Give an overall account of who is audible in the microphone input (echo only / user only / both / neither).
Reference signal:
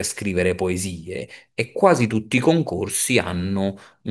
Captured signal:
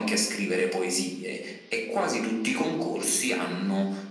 echo only